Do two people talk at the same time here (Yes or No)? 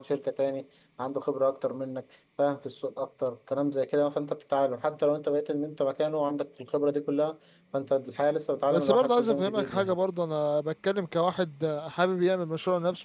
Yes